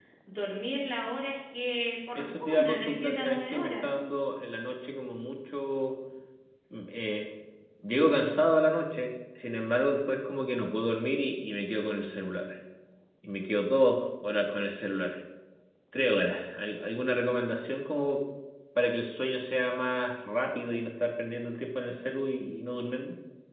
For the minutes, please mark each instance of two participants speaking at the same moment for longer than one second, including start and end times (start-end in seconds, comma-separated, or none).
2.1-3.9